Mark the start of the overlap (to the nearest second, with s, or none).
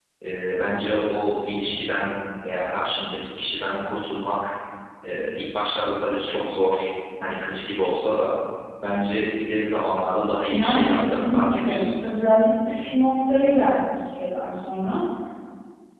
10 s